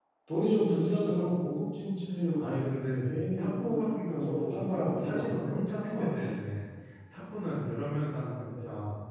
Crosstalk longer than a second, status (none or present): present